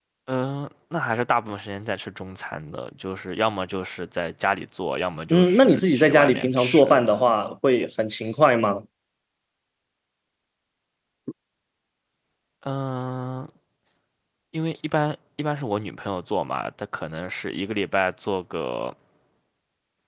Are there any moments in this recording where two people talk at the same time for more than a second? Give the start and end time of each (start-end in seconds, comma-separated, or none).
5.3-7.0